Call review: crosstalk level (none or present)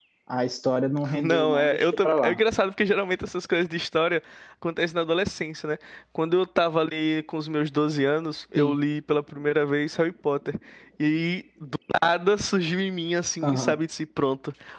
present